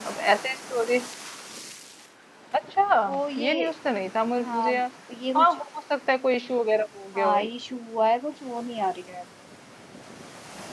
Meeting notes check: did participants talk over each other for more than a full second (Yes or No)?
No